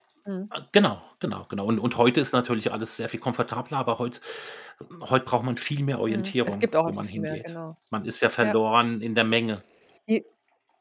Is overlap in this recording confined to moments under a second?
No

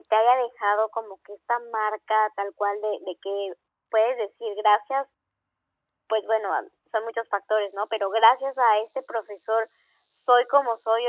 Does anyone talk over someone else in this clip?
No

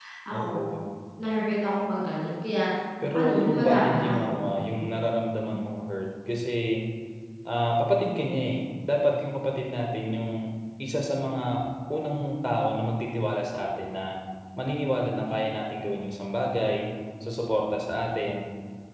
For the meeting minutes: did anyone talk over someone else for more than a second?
Yes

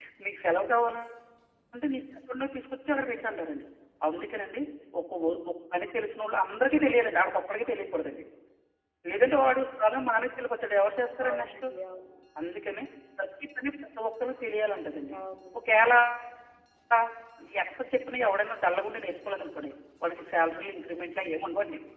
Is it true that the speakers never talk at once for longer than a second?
Yes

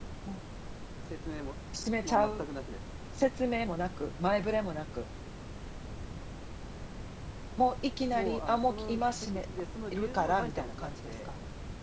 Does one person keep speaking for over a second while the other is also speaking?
Yes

